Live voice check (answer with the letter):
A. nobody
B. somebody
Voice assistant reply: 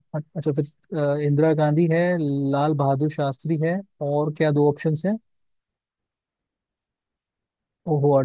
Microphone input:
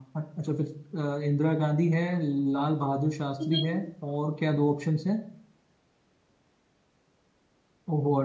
B